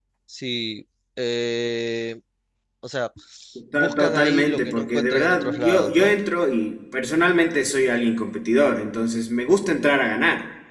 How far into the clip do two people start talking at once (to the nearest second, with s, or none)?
4 s